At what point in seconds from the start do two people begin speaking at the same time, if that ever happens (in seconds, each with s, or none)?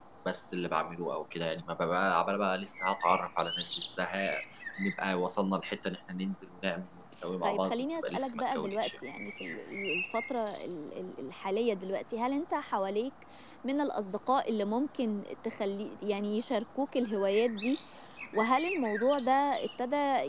7.4 s